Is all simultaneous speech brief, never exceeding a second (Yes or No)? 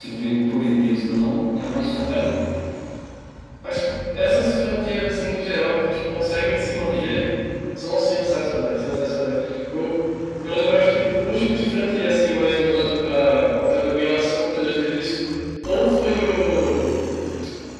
Yes